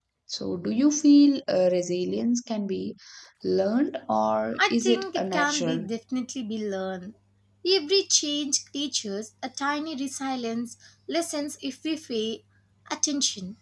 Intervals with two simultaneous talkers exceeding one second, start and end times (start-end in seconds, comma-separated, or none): 4.6-5.8